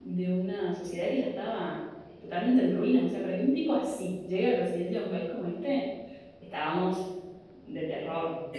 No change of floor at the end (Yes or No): No